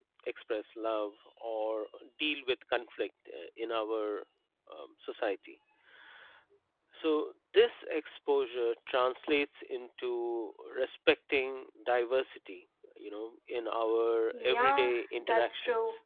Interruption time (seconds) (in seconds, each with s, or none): 14.3 s